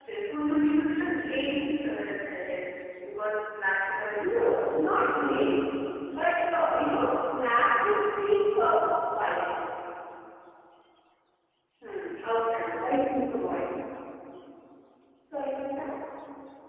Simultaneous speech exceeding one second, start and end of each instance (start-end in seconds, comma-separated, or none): 4.2-5.6